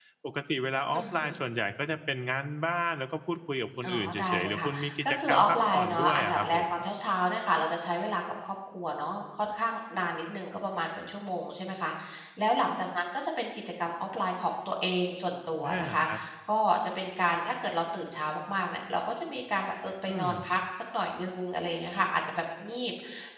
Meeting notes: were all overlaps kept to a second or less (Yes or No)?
No